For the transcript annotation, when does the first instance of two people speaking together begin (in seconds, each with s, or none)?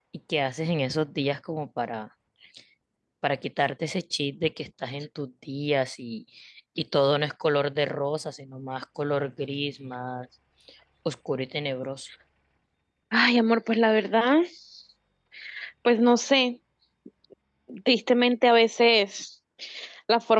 none